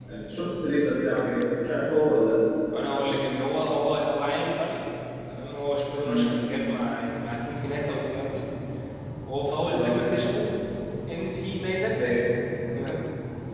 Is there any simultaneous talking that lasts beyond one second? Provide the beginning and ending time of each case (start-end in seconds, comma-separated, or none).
none